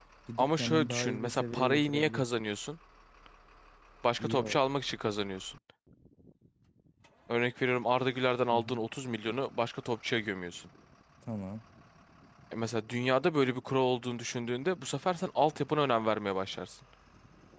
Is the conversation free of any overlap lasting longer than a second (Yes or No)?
No